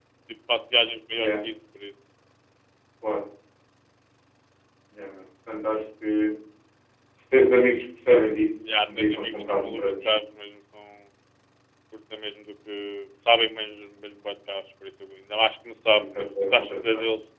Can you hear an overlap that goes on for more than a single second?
Yes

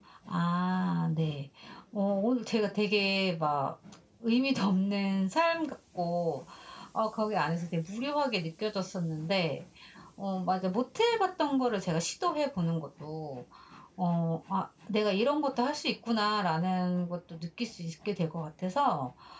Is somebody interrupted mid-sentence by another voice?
No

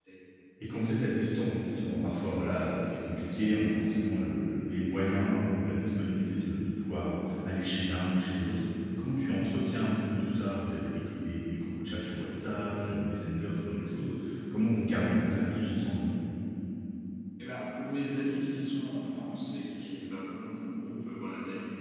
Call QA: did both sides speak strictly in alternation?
Yes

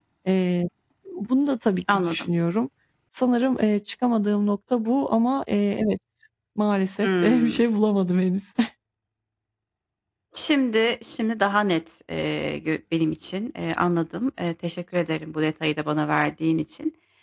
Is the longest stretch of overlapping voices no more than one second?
Yes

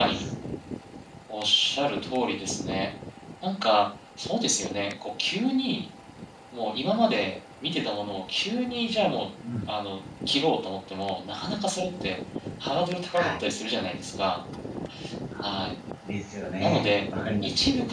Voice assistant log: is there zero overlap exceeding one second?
Yes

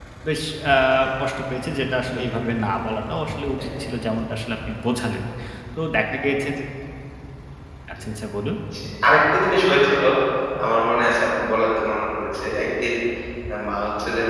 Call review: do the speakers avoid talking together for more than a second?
Yes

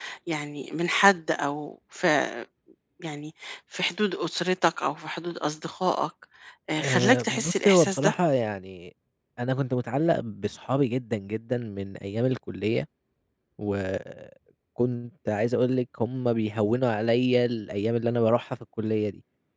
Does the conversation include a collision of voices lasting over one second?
Yes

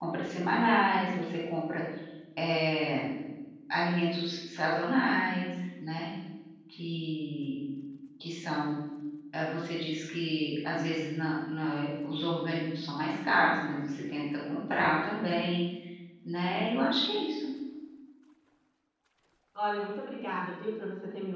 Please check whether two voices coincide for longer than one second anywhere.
No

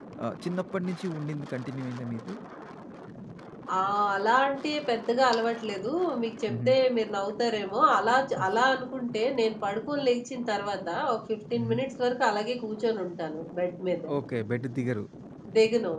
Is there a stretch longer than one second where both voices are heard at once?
No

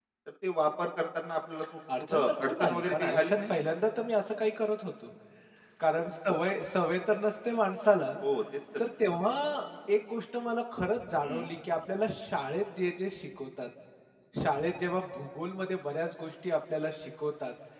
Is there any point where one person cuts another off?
Yes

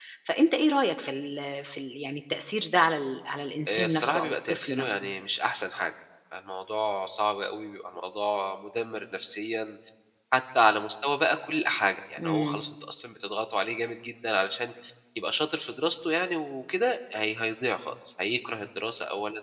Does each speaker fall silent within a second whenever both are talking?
No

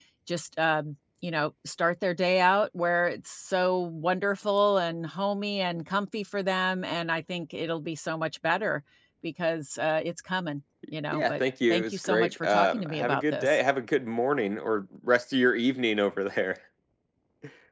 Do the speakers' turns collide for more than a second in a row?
Yes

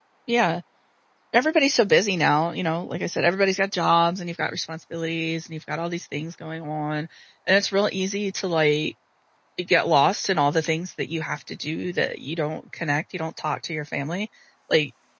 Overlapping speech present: No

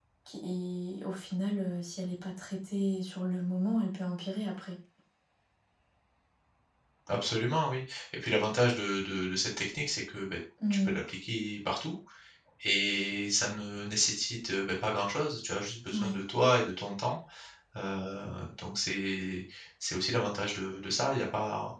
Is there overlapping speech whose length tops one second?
No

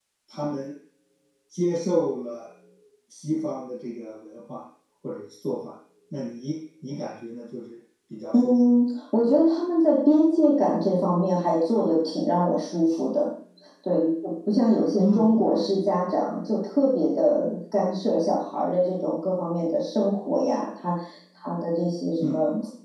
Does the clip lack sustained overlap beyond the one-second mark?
Yes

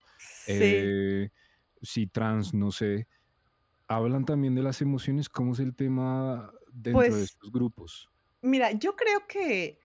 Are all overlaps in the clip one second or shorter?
Yes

